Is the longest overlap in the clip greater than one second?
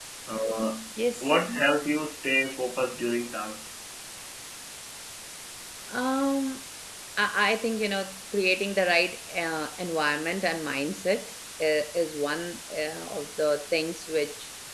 No

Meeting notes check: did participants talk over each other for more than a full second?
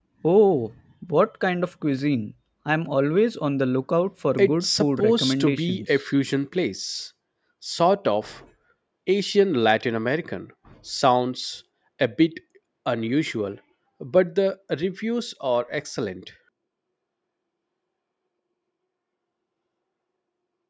Yes, from 4.4 s

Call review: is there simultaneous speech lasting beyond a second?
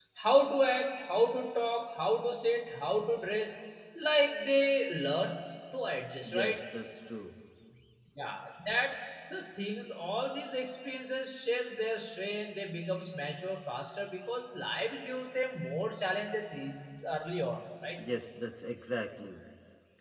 No

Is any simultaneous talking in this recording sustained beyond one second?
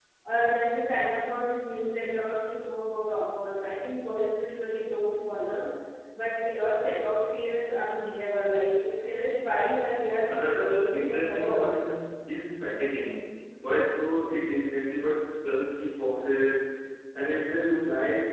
Yes, from 10.3 s

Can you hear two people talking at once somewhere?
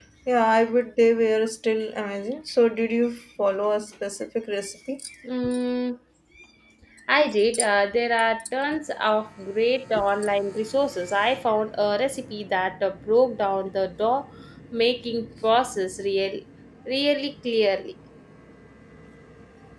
No

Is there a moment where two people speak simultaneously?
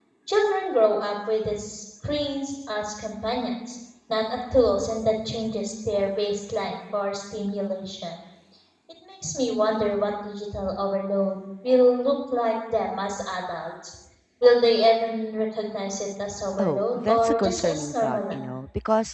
Yes, from 16.6 s

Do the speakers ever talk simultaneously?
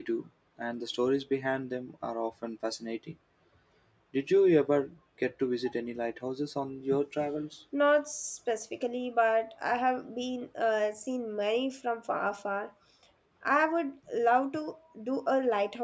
No

